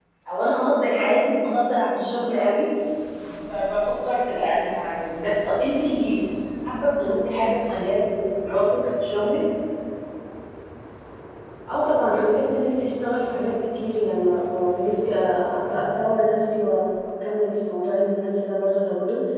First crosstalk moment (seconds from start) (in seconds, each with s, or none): none